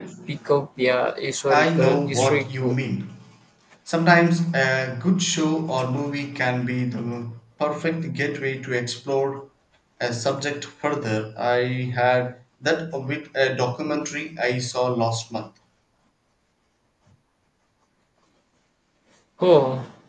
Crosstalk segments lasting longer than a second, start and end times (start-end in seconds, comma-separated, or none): 1.5-2.8